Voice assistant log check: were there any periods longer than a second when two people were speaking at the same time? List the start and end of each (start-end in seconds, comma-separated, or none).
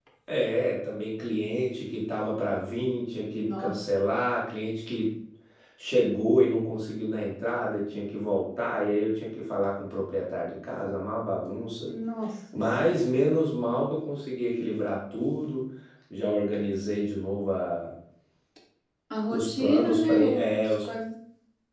19.3-20.7